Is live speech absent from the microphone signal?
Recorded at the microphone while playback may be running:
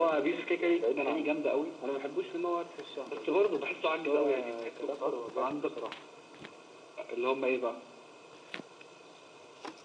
Yes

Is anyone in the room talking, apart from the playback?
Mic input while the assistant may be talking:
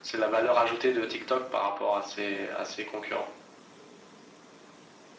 No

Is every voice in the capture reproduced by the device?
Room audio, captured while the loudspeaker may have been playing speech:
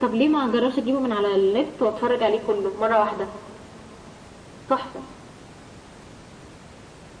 Yes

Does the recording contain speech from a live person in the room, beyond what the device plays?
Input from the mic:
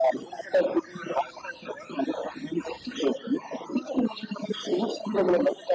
No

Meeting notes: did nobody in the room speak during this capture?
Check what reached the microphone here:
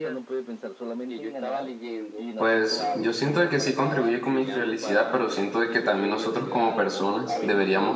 No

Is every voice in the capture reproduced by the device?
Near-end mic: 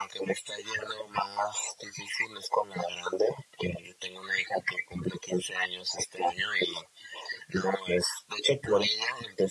Yes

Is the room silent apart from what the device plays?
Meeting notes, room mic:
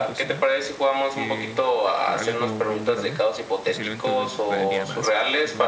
No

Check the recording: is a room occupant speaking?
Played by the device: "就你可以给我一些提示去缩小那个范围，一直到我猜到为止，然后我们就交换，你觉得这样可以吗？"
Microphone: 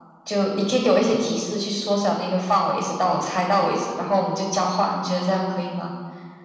No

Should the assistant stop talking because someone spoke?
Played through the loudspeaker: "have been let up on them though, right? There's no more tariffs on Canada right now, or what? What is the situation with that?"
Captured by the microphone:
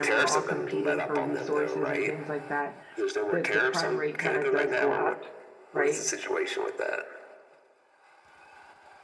Yes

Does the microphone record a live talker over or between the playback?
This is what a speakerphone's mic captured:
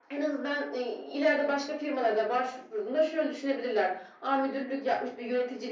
No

